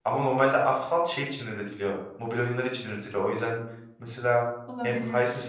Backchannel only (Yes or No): Yes